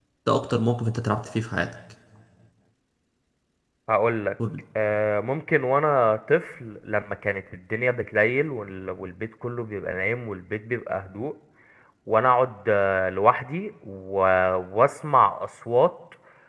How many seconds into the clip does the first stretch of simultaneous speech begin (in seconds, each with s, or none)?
none